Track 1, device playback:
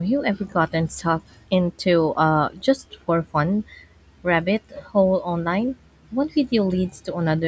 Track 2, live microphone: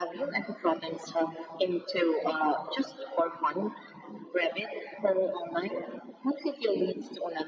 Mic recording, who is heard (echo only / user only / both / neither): echo only